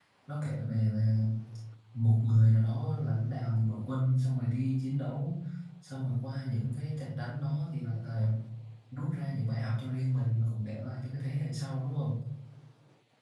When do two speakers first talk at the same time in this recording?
none

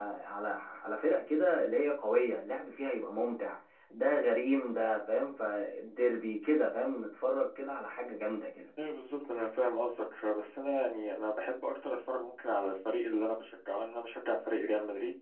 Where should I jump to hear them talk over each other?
none

